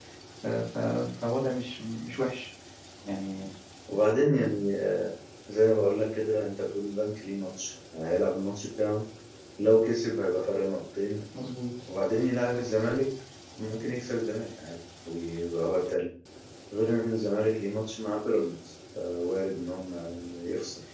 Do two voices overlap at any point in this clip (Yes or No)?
No